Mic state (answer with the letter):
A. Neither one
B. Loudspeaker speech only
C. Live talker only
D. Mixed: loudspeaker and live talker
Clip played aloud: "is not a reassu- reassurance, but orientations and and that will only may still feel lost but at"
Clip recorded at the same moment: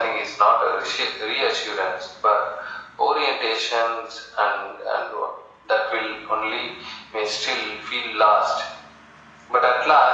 B